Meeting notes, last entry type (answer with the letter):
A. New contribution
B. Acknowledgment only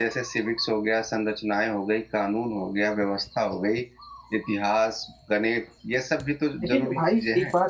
A